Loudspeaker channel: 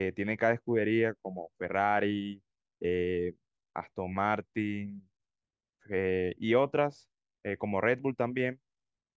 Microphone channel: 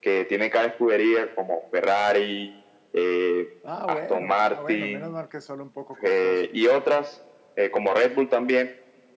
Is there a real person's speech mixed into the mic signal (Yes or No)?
Yes